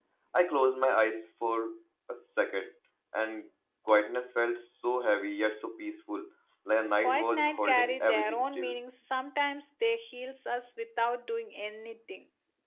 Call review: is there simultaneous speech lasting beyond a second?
Yes, from 7.0 s

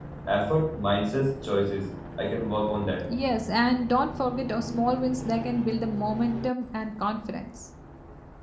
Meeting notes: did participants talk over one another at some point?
No

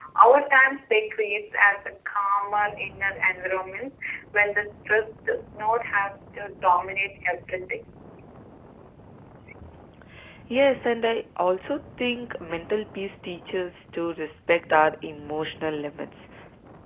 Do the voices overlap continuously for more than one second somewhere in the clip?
No

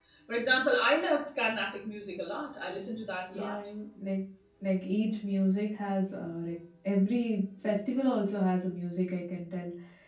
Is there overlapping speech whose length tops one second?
No

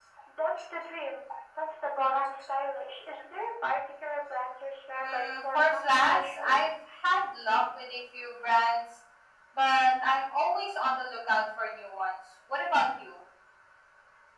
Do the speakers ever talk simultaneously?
Yes, from 5.0 s

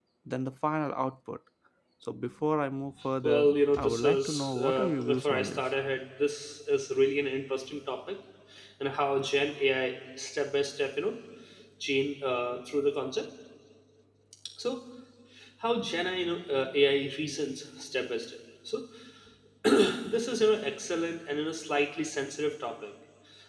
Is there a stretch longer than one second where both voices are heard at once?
Yes, from 3.2 s

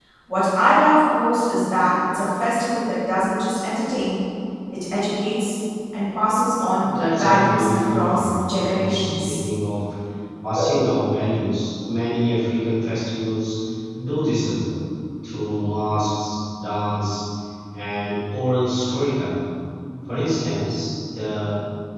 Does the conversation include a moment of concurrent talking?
Yes, from 6.8 s

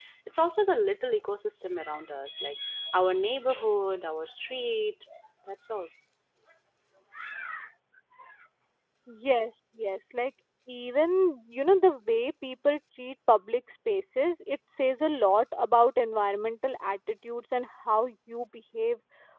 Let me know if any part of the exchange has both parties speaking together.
No

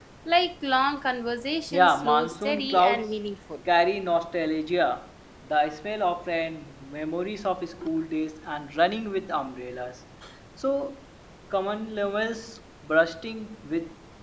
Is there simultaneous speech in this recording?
Yes, from 1.7 s

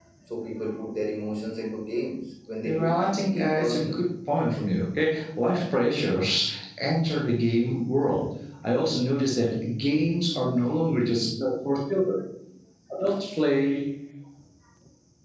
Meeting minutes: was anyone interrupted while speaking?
Yes, from 2.6 s

